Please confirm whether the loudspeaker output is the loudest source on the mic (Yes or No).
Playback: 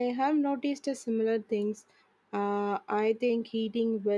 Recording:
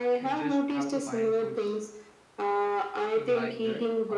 Yes